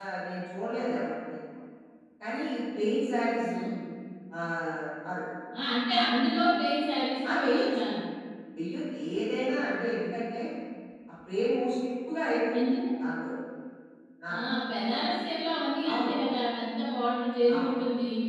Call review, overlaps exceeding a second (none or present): none